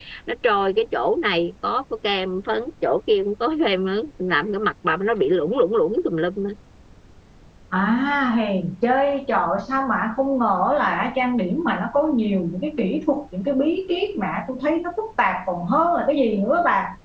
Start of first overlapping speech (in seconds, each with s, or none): none